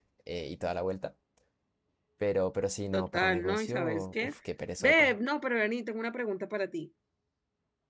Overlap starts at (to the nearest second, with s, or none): 3 s